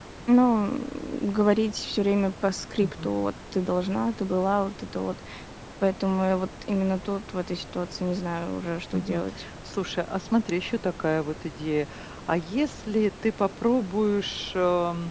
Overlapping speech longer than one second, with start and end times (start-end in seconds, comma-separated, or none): none